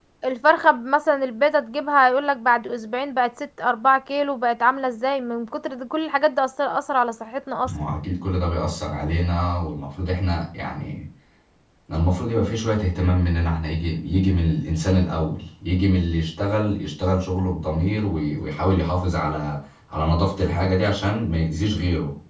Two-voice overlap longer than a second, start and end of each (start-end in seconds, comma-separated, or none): none